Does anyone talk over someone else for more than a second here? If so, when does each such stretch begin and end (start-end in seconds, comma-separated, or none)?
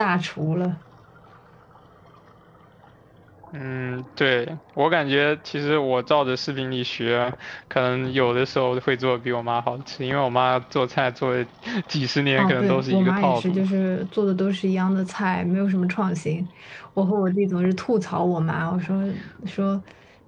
12.4-13.6